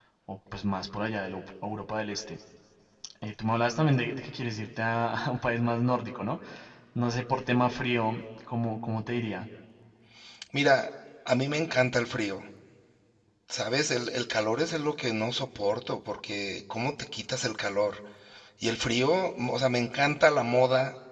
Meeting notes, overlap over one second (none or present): none